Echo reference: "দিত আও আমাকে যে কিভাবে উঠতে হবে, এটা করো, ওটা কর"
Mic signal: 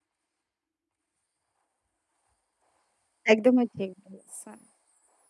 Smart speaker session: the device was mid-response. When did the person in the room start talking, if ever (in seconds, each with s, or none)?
3.3 s